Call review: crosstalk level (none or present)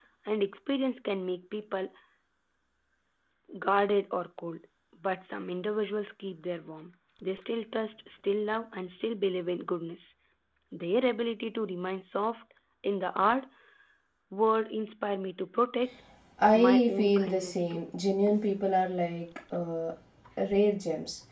present